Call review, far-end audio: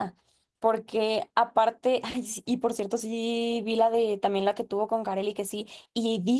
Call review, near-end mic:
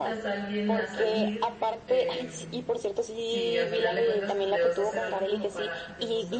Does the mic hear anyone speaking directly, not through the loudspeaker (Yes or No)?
Yes